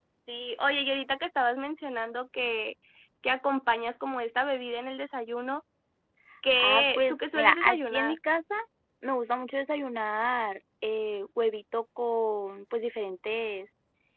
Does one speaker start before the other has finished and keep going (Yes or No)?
Yes